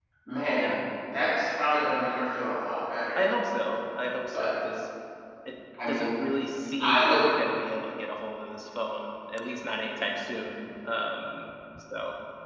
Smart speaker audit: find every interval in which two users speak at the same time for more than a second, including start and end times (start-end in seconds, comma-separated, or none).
none